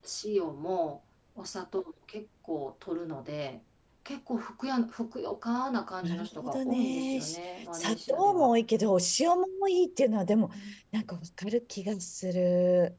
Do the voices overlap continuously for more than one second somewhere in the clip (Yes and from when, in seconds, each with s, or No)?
Yes, from 6.0 s